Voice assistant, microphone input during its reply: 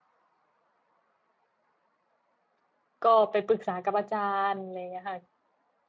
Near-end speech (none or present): present